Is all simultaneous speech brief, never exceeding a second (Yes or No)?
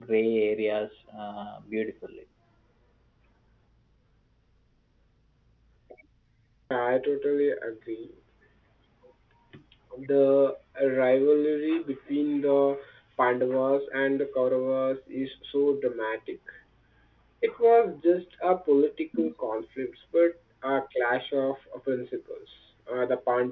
Yes